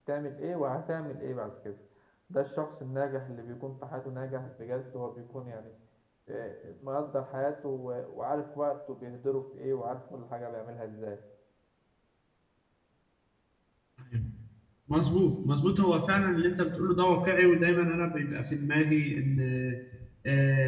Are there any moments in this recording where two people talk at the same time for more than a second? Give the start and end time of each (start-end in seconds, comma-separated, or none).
none